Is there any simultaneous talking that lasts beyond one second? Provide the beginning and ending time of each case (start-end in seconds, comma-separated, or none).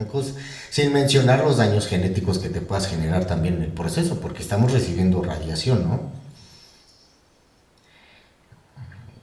none